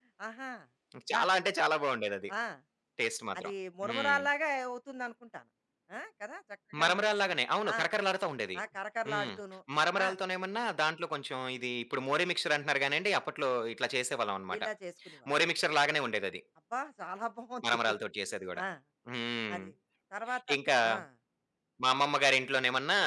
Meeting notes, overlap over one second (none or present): none